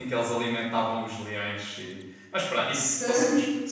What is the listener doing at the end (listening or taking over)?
listening